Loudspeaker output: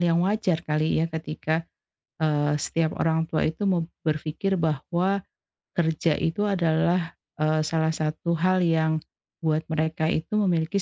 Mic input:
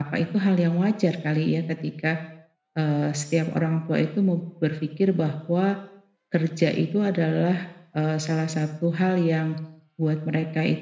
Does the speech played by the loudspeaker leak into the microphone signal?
Yes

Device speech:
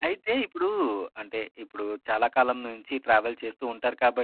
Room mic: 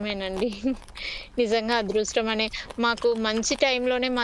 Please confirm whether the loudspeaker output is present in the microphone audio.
No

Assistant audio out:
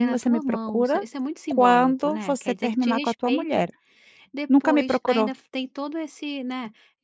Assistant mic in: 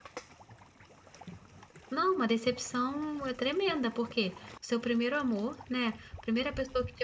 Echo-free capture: Yes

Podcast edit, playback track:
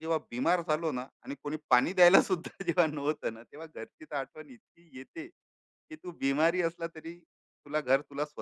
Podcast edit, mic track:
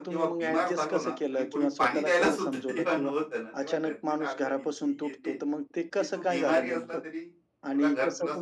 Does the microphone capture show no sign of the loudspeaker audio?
No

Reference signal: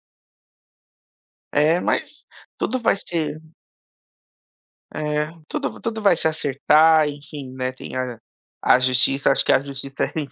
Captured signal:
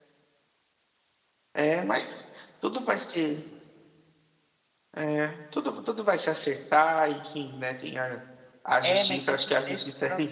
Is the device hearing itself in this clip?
Yes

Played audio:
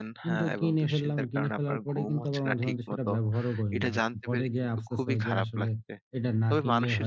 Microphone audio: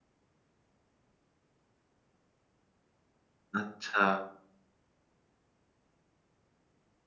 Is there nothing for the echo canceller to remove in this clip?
Yes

